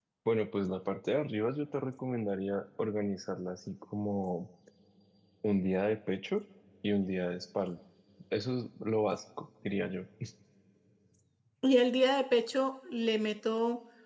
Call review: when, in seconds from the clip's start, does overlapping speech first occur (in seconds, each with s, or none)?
none